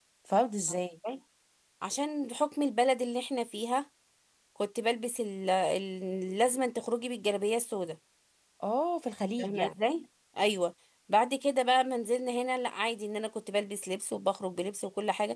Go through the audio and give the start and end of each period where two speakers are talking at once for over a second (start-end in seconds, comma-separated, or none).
none